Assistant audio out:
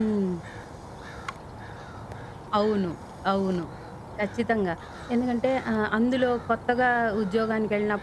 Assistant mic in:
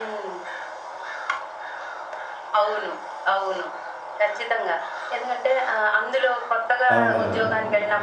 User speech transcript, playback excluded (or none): అవునవును.